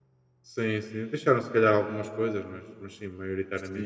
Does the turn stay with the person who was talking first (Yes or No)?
No